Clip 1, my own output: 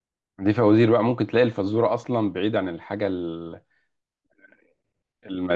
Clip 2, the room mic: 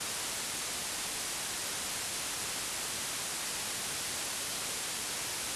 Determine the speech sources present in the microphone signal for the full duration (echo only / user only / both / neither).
neither